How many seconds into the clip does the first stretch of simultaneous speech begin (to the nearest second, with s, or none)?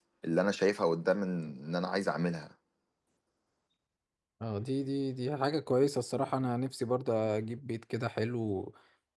none